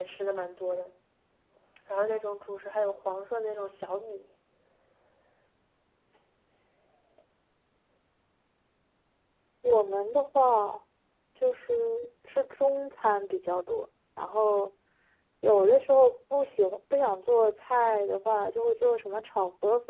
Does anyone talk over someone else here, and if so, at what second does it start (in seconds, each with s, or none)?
none